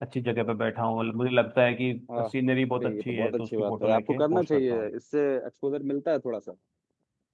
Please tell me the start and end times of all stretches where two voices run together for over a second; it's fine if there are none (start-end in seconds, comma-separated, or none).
2.7-4.9